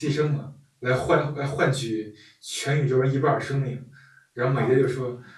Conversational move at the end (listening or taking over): listening